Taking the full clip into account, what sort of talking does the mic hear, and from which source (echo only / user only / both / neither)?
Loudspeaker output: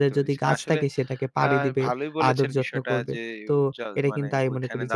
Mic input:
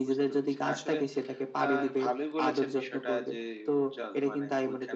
echo only